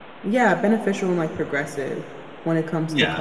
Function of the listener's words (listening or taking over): listening